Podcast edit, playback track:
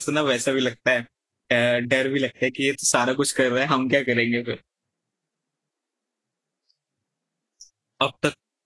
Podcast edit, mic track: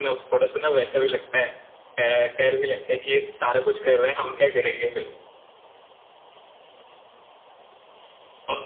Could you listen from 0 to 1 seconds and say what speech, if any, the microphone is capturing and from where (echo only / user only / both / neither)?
echo only